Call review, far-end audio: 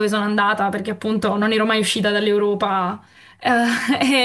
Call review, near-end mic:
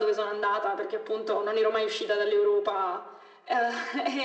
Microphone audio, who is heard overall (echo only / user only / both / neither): echo only